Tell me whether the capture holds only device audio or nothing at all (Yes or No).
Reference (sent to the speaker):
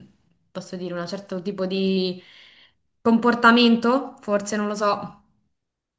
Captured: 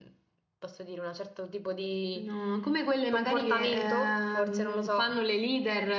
No